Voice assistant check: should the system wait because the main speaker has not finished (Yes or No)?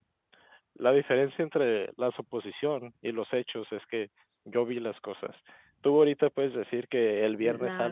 Yes